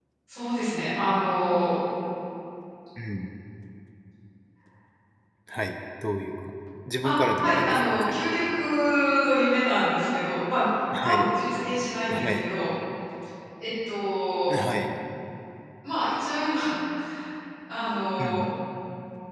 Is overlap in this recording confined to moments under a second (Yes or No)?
No